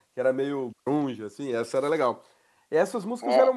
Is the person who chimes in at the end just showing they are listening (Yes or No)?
Yes